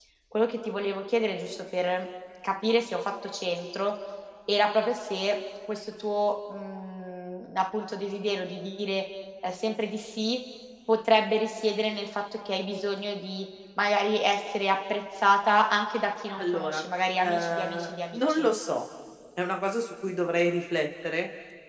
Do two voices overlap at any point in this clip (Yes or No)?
Yes